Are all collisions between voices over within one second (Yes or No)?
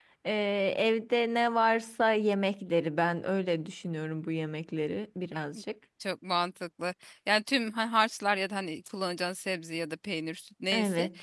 Yes